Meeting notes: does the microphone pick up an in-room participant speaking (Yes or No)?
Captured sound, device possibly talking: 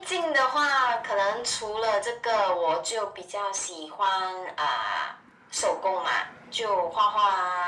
No